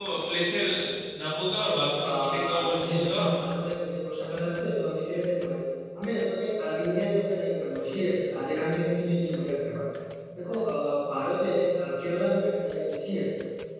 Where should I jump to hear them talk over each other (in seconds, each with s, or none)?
1.6 s